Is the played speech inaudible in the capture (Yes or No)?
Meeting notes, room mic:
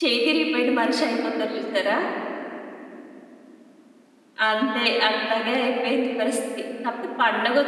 Yes